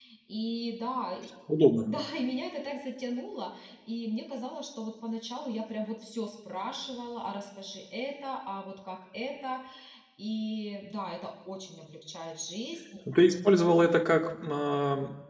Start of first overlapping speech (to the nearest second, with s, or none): none